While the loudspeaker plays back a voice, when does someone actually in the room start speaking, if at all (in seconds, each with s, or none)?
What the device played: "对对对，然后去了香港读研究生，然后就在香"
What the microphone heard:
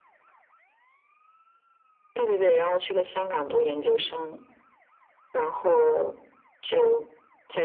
none